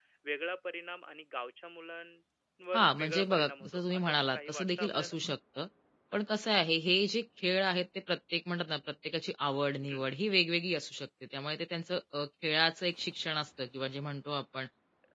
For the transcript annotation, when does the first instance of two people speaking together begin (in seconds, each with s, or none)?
2.7 s